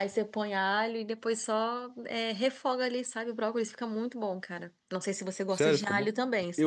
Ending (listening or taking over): taking over